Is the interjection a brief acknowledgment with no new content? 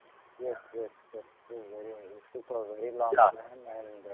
Yes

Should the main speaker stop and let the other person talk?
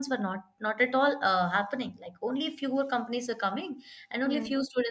No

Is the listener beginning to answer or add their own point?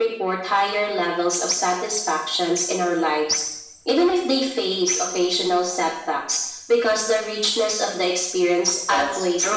Yes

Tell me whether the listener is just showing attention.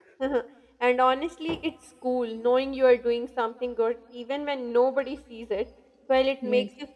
Yes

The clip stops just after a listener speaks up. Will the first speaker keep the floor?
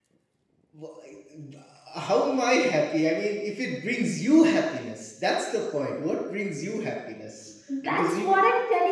No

